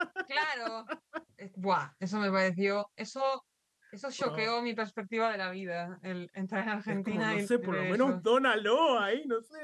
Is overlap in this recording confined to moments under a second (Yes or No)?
No